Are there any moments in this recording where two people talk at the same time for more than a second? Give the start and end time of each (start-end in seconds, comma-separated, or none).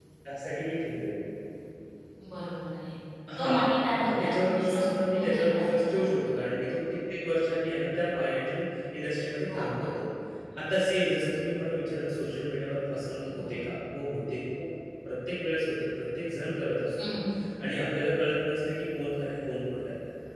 4.0-6.0